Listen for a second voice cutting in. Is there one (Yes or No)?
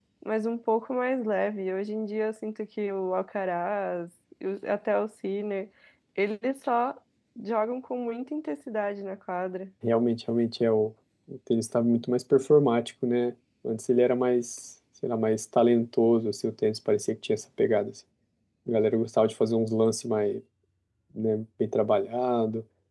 No